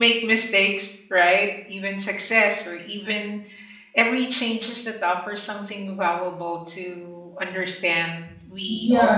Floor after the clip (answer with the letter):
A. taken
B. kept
A